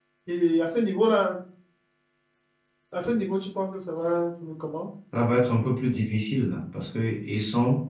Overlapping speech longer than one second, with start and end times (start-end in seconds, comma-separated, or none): none